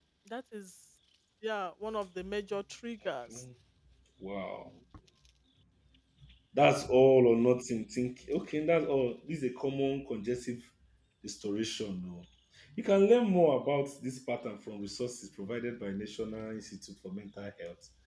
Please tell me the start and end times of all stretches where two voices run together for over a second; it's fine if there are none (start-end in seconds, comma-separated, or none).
none